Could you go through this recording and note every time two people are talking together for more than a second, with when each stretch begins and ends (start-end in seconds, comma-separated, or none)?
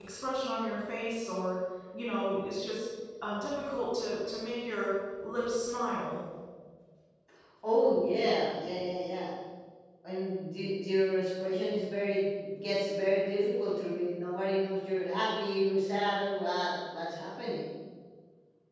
none